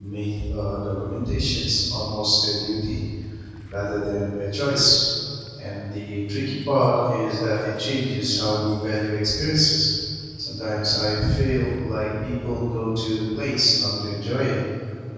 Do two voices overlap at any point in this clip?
No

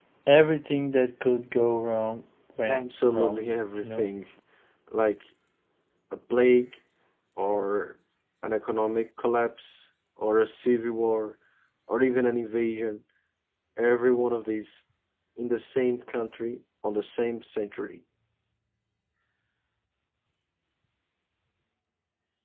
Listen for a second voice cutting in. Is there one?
Yes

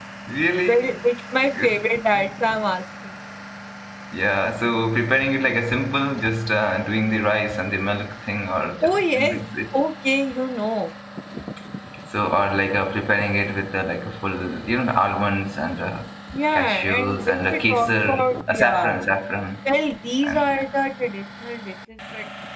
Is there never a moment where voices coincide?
No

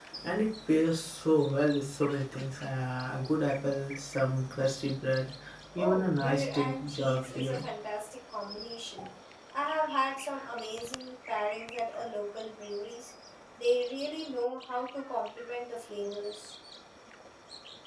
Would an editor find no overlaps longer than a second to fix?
No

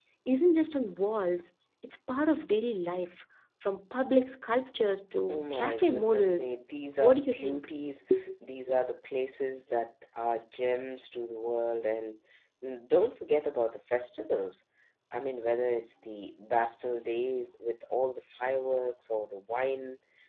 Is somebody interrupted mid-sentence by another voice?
Yes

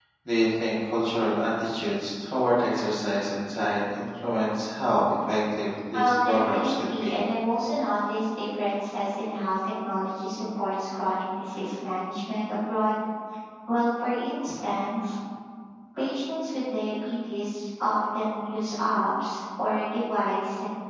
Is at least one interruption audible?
Yes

